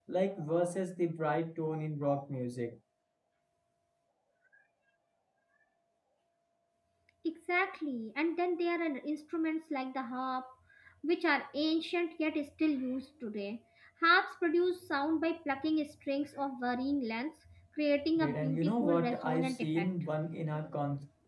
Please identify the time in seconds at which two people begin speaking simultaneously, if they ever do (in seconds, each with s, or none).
18.2 s